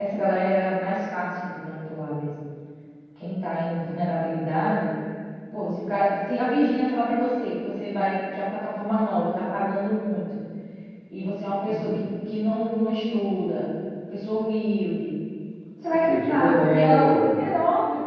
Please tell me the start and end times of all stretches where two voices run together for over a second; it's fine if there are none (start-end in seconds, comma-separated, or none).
15.9-17.1